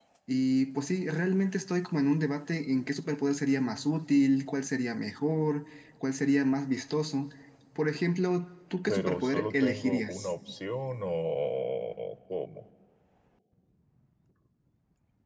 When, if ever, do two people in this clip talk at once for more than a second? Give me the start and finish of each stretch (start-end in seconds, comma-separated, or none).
8.9-10.3